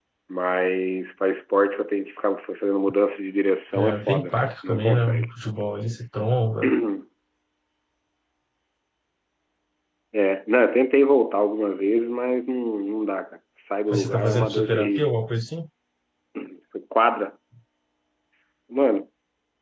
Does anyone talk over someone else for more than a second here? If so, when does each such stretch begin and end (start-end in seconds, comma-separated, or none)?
3.8-5.3, 13.9-15.1